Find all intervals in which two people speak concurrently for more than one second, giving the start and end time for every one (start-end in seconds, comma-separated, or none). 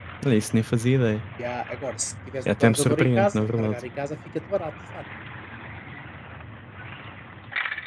2.5-3.8